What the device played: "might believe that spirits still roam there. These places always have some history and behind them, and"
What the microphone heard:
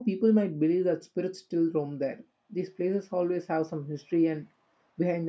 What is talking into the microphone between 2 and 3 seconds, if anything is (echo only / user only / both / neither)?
echo only